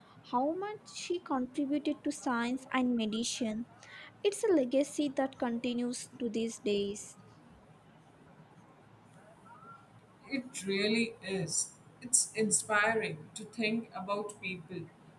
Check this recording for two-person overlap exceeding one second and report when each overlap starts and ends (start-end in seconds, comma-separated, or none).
none